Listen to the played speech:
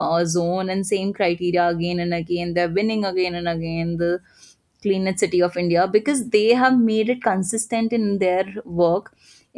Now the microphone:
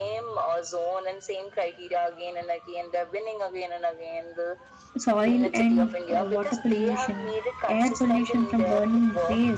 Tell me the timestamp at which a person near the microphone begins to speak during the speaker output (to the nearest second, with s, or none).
5 s